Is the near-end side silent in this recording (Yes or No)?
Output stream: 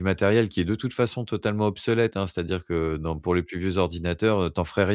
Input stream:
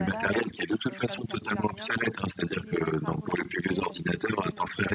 No